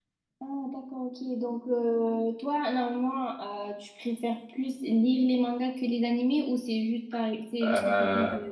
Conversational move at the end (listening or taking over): taking over